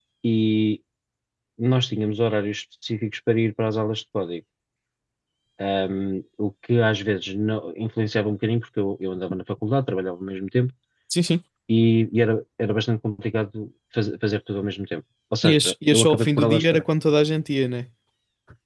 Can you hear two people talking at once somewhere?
Yes, from 15.4 s

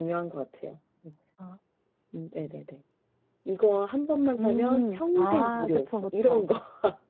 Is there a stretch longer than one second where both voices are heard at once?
Yes, from 4.4 s

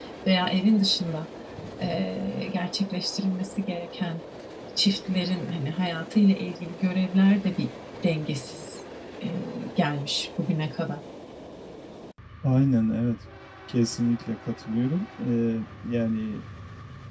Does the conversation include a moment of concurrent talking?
No

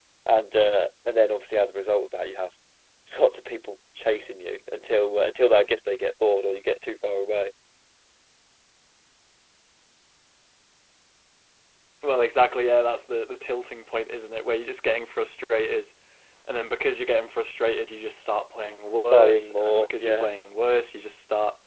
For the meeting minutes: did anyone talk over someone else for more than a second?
Yes, from 19.1 s

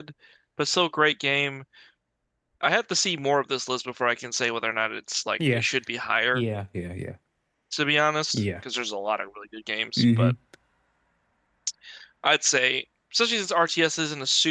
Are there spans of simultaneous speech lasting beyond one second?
No

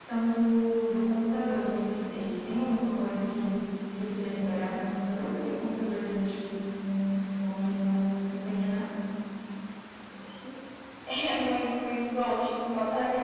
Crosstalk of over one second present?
No

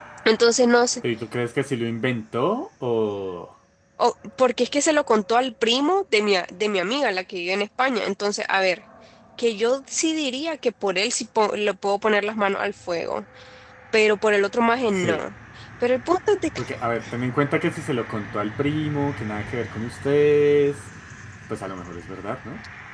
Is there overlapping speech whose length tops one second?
No

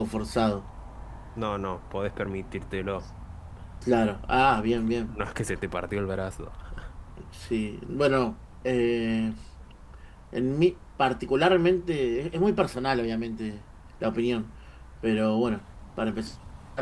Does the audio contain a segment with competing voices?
No

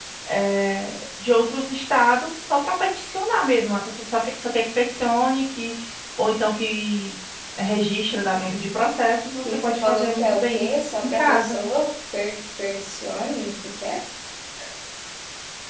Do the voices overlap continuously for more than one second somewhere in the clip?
Yes, from 9.4 s

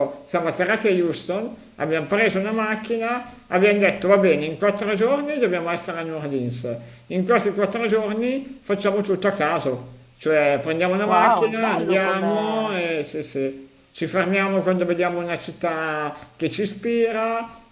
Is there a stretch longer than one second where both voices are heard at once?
Yes, from 11.1 s

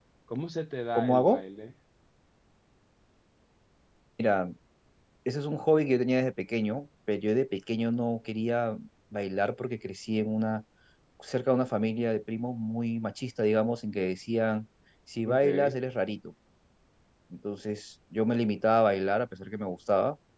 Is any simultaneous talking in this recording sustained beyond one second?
No

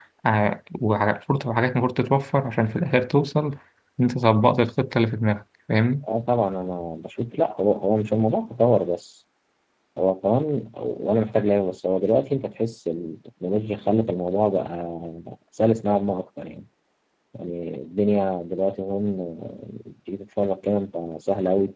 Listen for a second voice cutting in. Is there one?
No

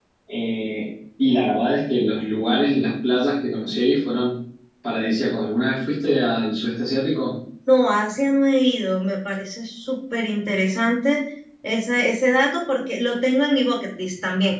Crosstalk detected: No

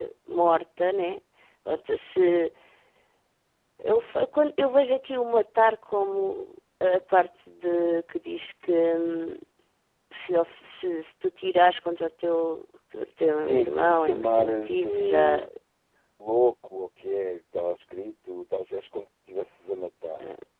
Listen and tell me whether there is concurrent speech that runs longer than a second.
Yes, from 13.4 s

